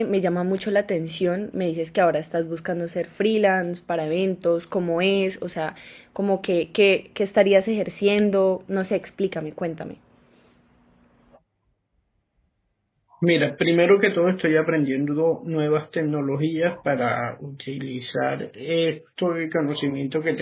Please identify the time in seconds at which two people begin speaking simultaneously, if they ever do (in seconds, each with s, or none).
none